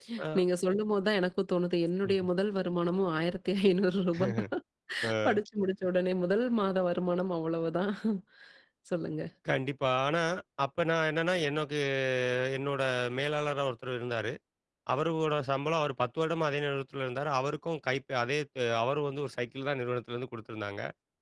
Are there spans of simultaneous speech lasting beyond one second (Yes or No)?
No